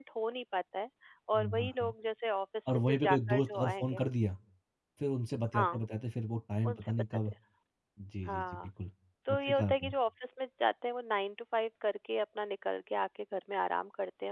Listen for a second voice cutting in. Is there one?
Yes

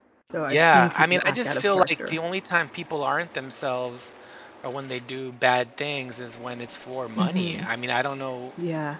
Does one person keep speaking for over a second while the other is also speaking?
Yes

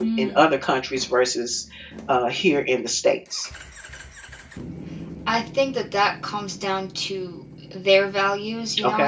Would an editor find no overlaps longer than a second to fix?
Yes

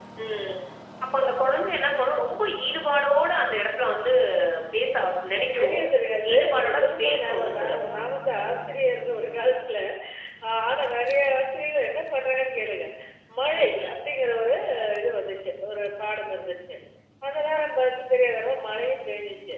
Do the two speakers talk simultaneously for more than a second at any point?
Yes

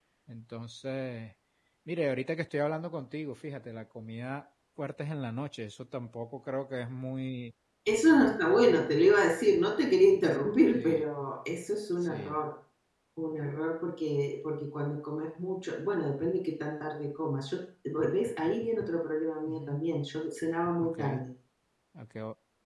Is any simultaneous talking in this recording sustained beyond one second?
No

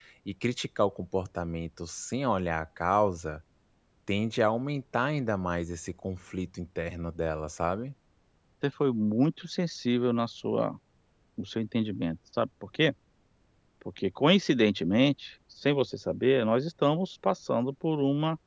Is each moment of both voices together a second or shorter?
Yes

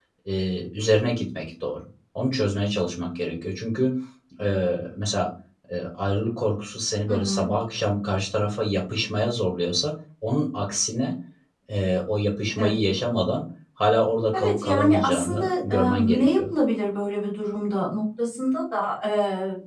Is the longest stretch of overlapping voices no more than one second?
No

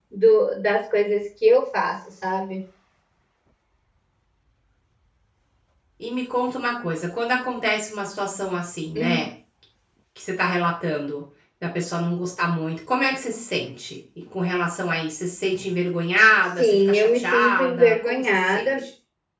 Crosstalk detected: Yes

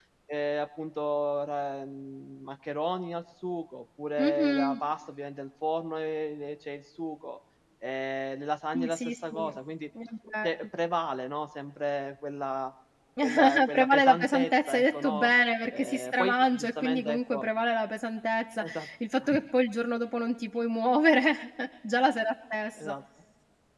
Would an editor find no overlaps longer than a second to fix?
No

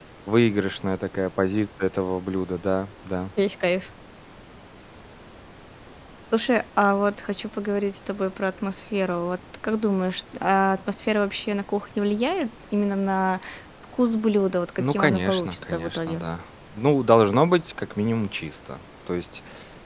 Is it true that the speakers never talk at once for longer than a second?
No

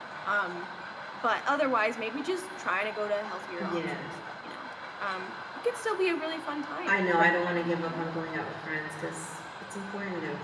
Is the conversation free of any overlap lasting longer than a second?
No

